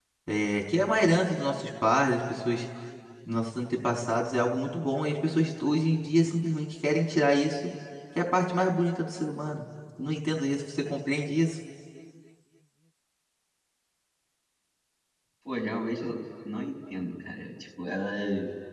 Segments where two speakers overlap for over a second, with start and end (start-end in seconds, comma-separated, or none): none